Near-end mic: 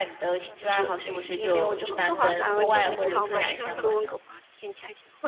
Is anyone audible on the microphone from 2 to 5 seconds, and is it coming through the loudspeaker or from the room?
both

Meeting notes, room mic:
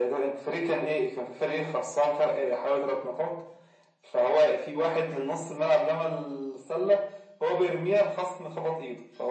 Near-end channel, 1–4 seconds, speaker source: echo only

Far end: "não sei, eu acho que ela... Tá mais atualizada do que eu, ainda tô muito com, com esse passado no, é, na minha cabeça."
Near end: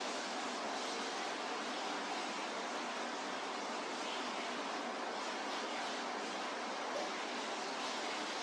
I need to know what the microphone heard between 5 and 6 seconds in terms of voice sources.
neither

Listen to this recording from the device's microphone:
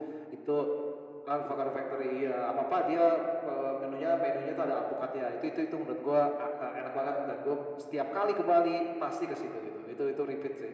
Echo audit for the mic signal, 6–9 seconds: echo only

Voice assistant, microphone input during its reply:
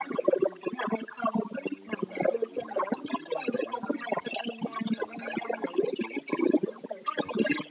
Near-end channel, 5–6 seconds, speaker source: echo only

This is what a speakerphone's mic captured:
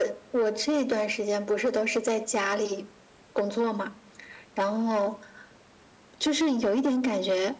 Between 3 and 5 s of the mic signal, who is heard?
echo only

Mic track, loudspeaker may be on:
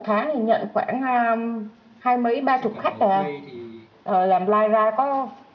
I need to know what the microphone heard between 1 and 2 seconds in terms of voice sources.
echo only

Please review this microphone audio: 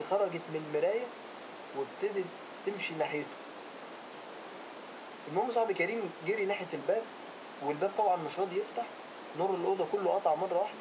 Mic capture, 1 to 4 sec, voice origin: echo only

